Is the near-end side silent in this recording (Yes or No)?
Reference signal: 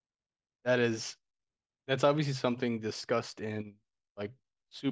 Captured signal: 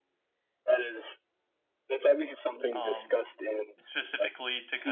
No